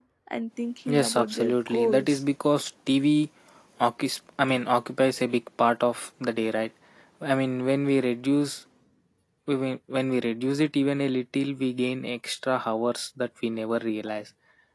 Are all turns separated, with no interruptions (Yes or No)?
No